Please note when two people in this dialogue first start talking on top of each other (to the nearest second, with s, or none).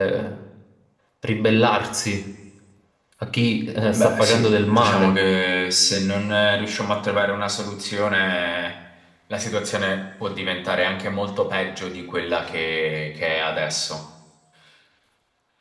4 s